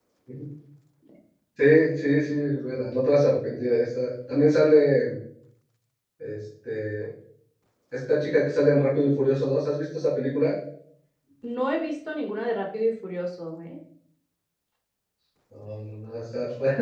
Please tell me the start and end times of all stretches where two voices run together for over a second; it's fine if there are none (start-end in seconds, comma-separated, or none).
none